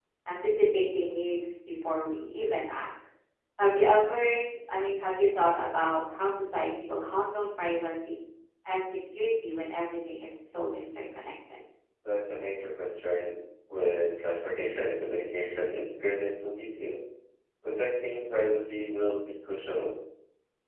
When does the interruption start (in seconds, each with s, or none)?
none